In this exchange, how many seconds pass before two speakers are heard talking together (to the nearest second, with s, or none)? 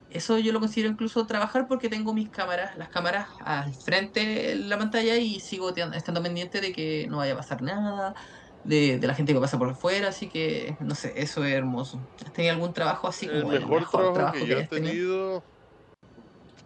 13 s